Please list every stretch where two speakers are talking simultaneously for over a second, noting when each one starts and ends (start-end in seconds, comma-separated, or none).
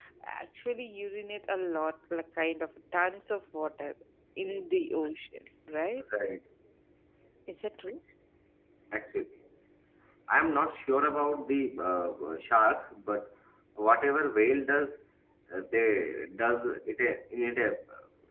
none